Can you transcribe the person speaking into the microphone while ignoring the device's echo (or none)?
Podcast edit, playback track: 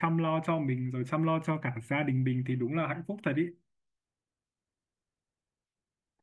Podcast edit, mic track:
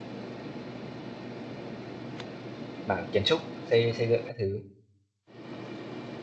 mảng kiến trúc, xây xây dựng các thứ.